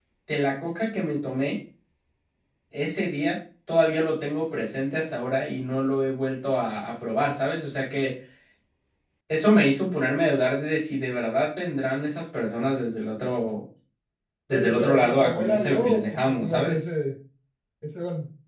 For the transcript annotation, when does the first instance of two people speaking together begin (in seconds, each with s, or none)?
14.5 s